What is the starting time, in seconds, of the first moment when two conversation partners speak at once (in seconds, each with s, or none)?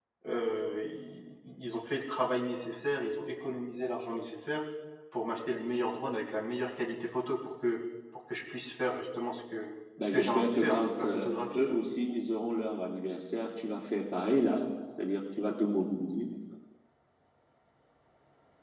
10.0 s